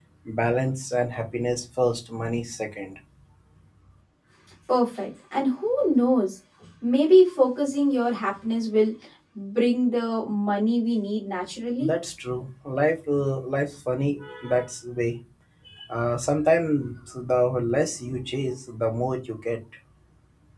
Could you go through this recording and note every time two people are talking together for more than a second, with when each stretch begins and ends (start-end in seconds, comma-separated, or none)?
none